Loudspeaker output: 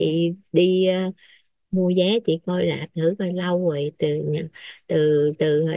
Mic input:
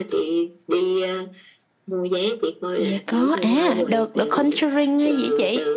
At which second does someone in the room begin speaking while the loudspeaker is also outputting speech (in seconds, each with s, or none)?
2.7 s